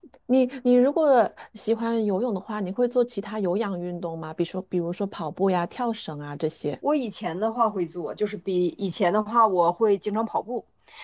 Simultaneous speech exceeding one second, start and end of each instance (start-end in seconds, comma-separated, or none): none